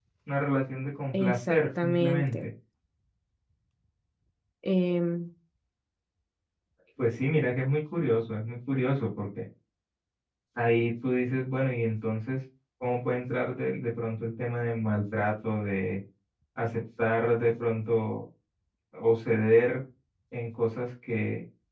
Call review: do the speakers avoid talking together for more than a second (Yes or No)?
No